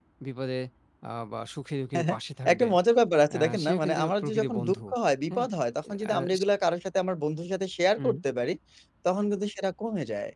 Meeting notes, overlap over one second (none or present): present